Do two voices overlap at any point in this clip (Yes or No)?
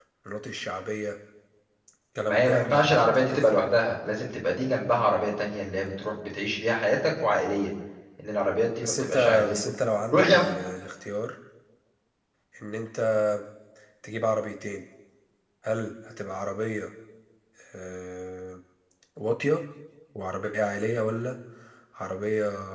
Yes